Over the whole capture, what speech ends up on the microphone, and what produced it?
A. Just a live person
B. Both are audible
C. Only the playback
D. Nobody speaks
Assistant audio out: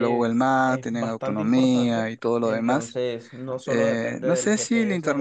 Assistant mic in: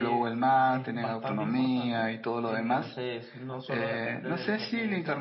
C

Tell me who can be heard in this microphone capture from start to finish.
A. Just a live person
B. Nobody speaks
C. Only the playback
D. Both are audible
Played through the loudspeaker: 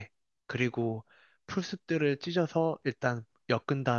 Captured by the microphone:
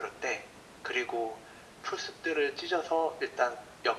C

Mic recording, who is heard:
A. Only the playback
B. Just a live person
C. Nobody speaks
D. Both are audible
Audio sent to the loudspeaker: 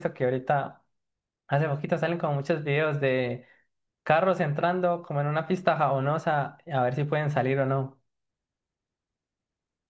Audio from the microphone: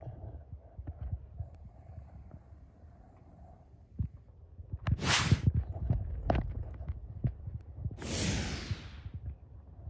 C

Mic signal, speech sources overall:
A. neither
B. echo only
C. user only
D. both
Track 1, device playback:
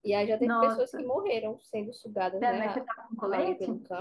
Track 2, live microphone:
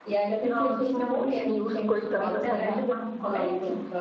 D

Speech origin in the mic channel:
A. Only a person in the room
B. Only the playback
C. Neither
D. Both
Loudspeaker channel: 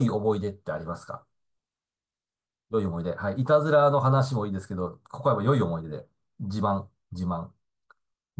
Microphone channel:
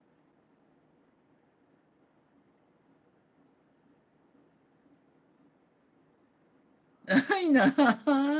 A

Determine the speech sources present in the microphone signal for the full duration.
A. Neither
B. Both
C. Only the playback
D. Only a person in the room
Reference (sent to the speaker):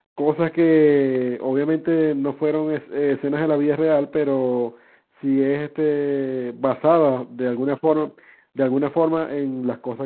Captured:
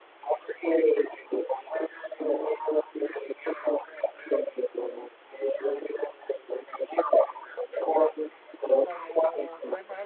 B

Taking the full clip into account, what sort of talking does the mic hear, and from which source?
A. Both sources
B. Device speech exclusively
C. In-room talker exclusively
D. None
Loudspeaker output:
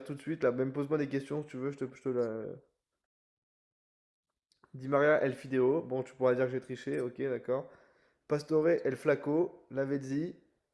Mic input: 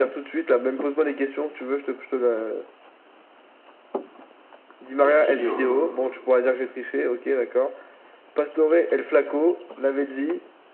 A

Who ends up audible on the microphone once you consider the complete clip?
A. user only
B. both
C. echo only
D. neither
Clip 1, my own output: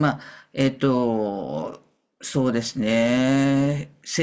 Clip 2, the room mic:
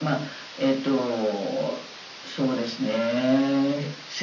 C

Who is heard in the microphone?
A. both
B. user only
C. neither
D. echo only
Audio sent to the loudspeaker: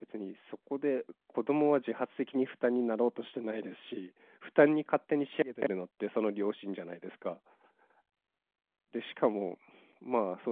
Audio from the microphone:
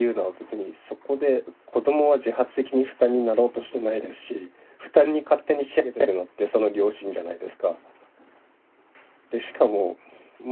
D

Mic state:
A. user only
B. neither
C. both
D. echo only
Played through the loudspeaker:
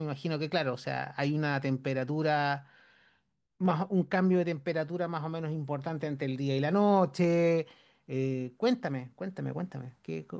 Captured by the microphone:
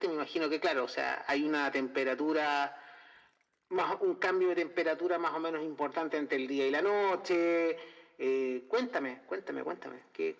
D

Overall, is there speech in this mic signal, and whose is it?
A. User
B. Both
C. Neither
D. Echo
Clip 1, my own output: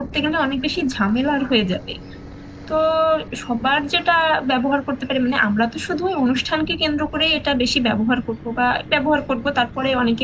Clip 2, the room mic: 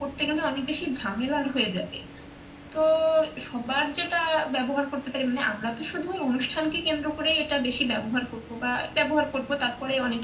D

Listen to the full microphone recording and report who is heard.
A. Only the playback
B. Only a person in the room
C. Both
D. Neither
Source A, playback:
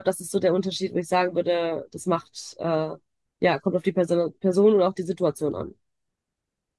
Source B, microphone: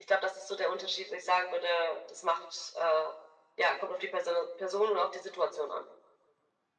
A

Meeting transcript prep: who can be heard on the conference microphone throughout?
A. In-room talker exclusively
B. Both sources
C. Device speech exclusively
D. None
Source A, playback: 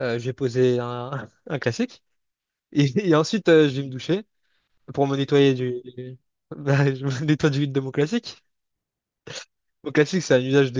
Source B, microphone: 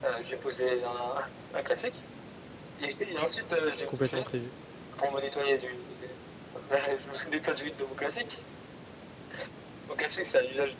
B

